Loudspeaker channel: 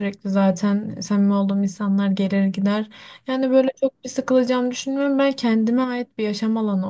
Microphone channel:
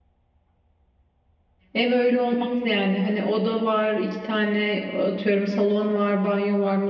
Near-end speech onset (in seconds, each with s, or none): 1.7 s